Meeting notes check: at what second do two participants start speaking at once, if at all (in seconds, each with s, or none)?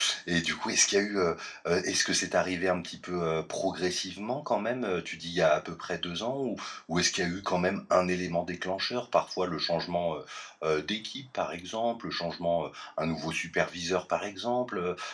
none